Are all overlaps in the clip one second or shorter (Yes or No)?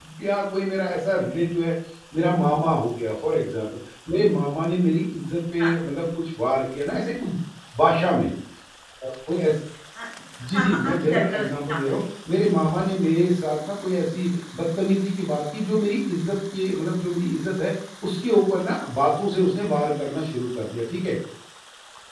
No